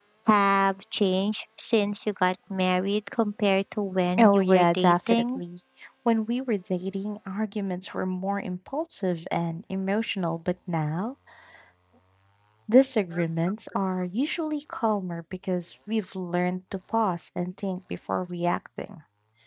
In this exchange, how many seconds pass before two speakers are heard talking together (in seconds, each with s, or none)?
4.2 s